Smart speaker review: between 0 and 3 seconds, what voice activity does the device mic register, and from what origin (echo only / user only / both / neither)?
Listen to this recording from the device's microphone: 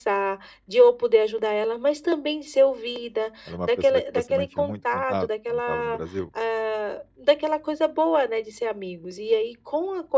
echo only